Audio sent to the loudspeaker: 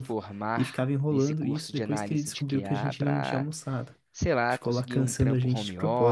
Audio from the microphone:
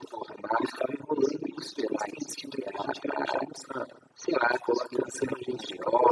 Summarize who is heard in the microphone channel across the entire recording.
echo only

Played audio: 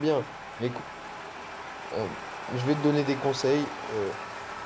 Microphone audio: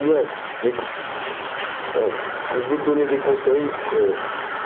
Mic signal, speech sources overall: echo only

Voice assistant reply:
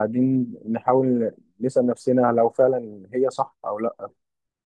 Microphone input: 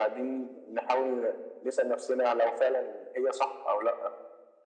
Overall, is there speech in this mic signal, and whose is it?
echo only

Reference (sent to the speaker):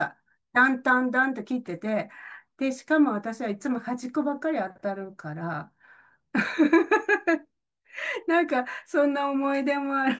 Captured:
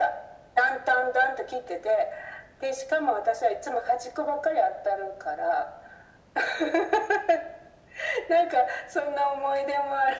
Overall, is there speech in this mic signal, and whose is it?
echo only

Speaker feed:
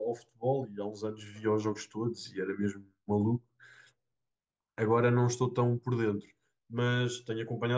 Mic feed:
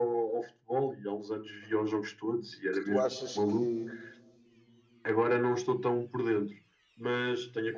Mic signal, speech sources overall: both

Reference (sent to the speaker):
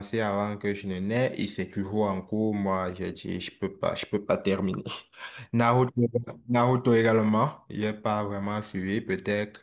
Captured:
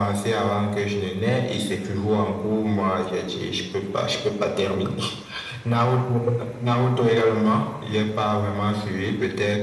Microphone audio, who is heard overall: echo only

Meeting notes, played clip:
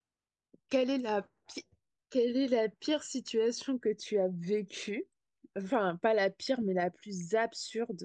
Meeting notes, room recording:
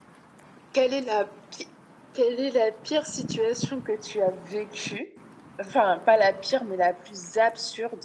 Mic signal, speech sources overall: echo only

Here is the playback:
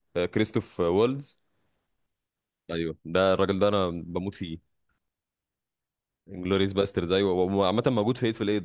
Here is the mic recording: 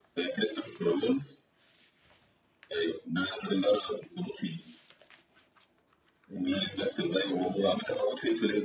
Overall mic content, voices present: echo only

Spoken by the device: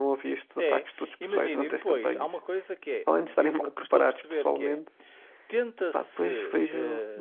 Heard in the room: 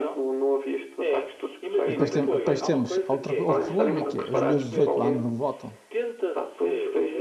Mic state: both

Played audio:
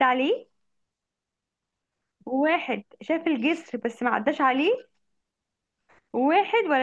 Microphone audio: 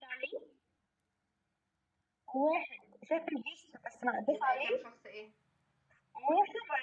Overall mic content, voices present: both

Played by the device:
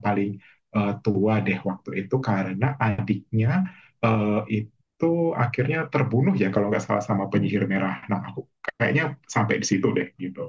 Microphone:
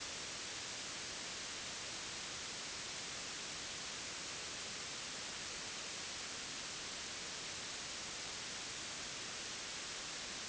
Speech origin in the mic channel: neither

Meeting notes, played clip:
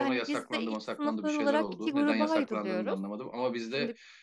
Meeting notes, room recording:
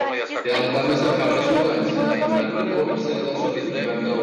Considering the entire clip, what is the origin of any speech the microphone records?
both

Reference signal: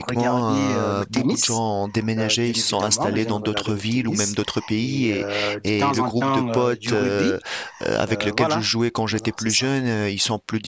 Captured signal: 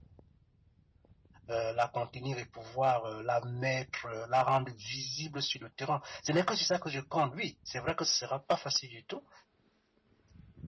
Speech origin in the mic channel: user only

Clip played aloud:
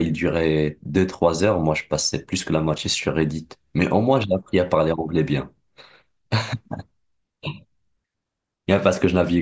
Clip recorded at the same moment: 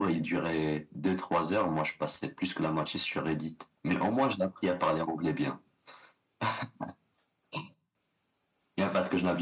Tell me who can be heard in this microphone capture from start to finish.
echo only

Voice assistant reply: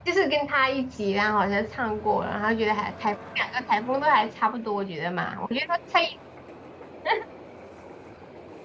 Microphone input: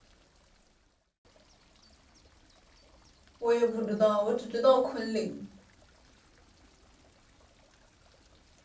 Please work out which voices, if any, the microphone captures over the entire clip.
user only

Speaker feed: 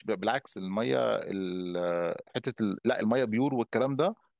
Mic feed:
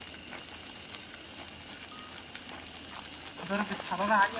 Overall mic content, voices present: user only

